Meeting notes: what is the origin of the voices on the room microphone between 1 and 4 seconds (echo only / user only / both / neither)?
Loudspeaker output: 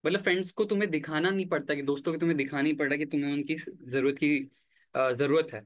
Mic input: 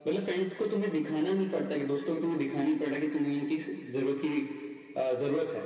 echo only